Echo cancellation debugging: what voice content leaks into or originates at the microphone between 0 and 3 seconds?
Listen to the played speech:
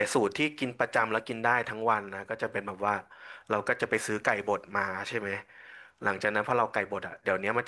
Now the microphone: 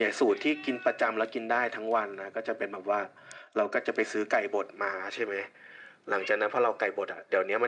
echo only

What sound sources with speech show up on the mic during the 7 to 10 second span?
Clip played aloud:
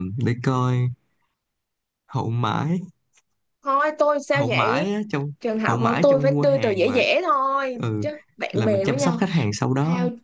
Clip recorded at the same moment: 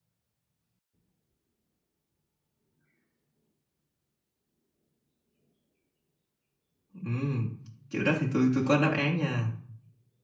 user only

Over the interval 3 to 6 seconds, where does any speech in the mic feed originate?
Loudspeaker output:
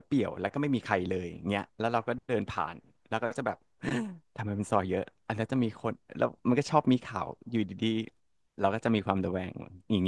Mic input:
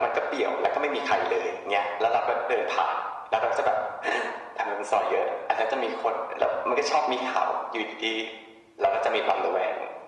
echo only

